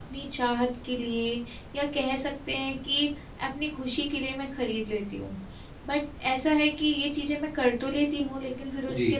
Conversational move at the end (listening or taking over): listening